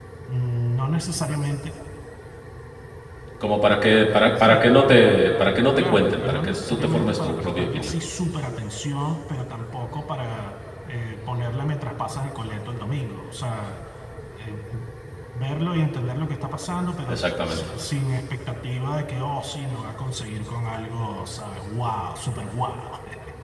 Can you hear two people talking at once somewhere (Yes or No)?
Yes